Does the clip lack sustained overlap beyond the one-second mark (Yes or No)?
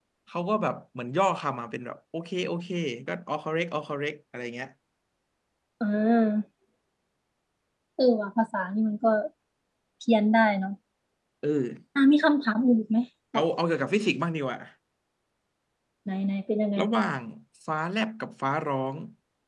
Yes